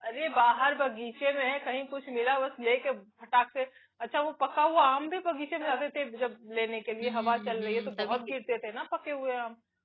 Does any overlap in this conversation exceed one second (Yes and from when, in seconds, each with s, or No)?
Yes, from 7.0 s